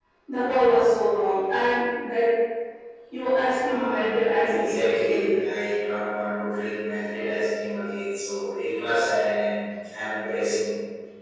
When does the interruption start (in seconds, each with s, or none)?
3.6 s